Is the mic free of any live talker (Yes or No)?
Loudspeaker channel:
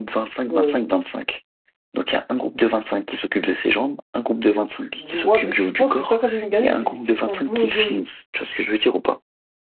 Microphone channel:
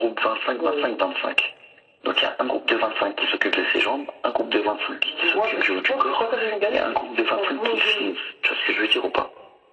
Yes